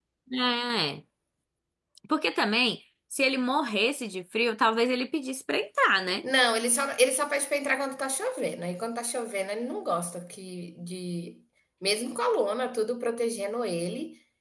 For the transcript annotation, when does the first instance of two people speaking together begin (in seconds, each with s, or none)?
none